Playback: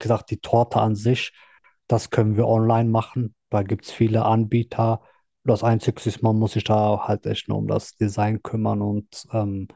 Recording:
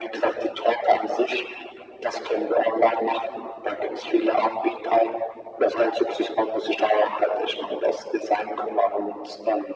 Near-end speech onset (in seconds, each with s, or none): none